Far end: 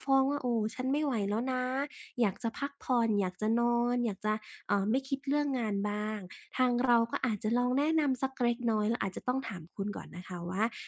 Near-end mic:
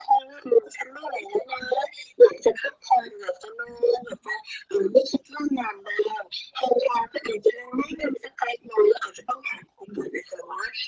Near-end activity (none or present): none